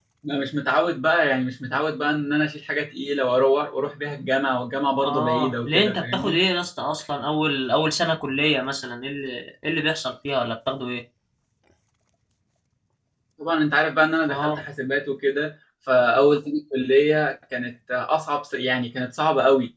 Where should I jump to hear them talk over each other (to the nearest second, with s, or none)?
5 s